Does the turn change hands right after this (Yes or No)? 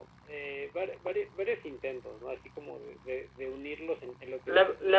Yes